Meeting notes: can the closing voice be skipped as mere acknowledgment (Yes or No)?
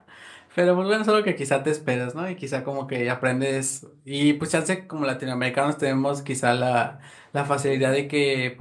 Yes